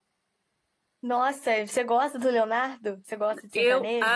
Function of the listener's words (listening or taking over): taking over